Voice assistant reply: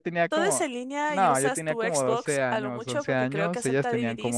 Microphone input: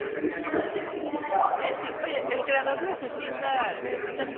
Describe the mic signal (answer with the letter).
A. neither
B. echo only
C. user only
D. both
D